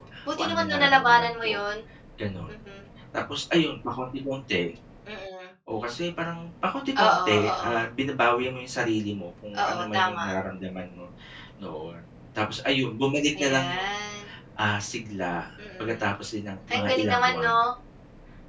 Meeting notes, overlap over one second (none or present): present